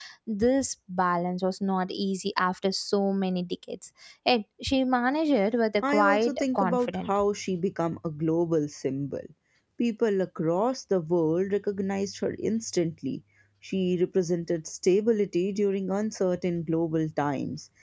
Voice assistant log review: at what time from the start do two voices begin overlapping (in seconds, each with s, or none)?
5.8 s